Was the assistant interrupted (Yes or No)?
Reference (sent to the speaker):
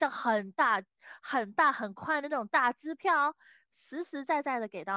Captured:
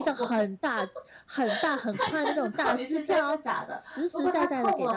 Yes